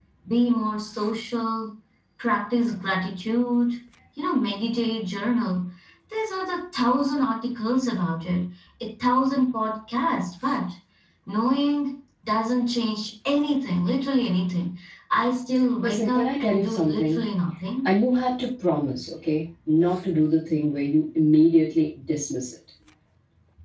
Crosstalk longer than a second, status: present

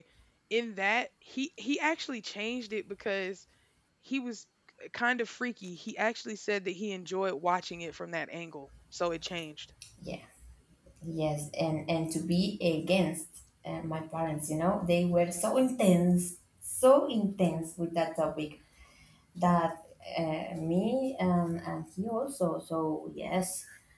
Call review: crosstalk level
none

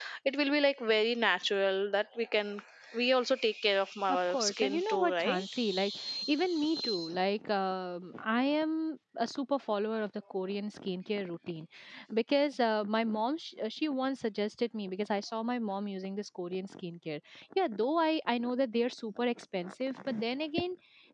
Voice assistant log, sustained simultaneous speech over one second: present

